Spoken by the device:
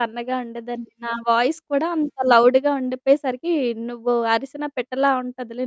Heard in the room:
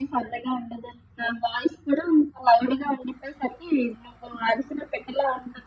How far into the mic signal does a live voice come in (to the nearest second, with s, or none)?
none